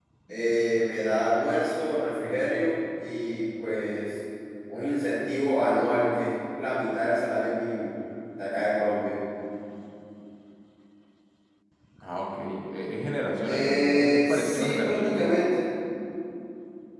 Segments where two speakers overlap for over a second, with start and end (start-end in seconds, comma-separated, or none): 13.4-15.3